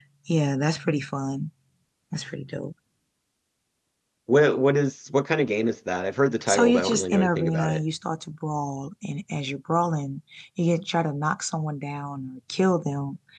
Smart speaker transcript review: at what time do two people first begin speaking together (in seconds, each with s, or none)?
6.5 s